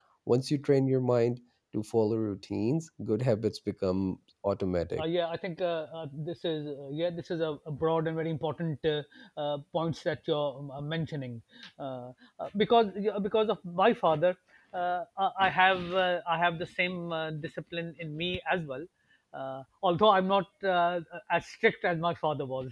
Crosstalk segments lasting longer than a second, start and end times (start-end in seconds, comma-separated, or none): none